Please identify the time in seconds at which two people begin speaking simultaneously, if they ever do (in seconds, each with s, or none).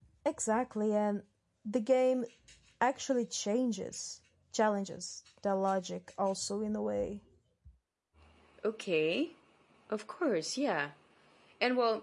none